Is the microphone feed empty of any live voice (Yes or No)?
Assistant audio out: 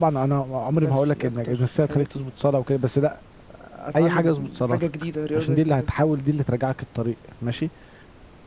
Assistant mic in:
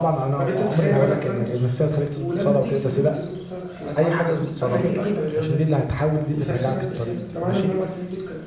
No